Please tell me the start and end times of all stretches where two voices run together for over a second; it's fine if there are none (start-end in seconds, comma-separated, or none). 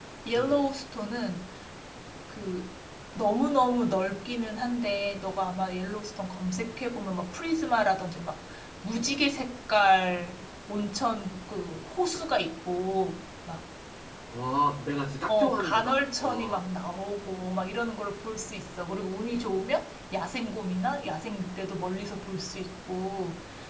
15.3-16.6